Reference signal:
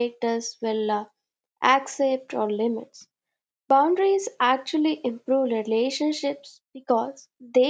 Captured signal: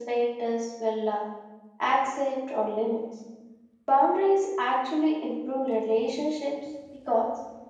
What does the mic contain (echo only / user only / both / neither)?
echo only